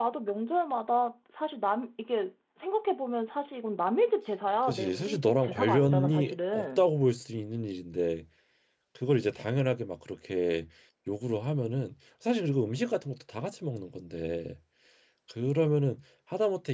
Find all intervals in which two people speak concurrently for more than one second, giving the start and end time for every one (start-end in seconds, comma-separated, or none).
4.7-6.8